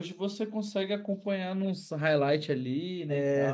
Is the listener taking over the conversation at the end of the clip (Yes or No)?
Yes